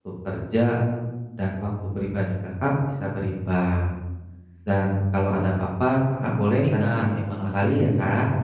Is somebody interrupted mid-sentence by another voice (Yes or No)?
Yes